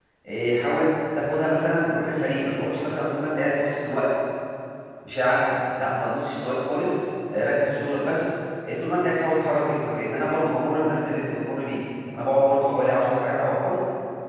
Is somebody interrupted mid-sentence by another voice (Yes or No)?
No